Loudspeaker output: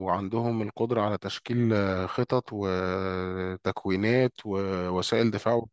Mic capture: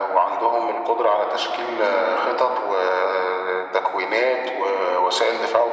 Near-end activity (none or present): none